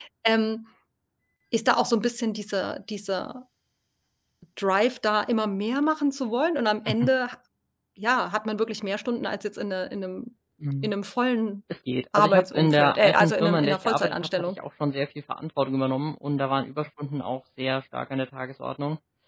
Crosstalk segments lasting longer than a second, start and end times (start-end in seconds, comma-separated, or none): 12.2-14.5